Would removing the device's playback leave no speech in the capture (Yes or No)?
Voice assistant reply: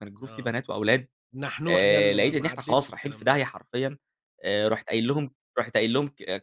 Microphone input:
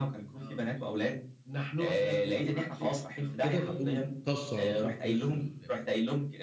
No